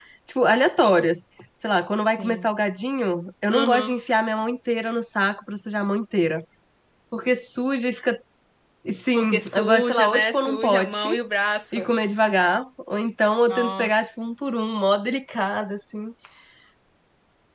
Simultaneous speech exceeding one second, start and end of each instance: 9.2-11.1

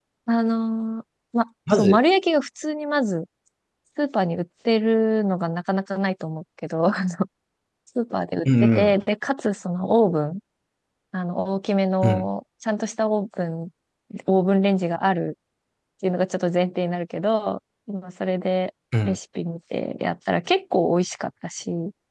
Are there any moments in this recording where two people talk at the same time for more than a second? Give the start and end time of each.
none

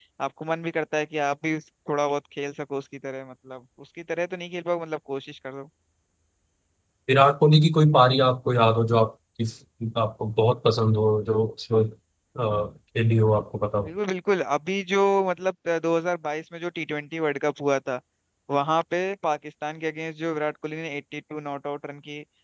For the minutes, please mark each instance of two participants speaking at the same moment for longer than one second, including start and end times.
none

